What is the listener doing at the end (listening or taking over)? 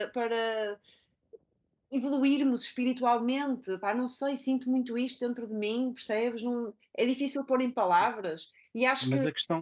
taking over